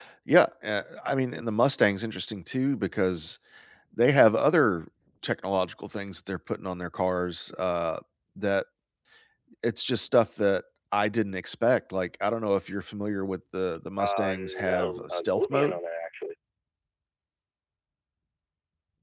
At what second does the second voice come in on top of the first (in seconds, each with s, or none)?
14.0 s